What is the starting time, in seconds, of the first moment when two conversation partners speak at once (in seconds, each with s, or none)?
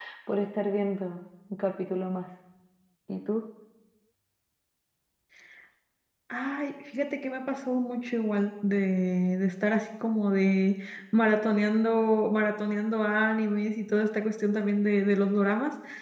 none